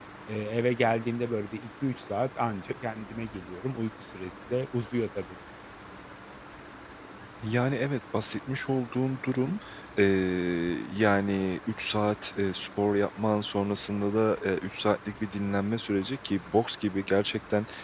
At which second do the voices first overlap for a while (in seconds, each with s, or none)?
none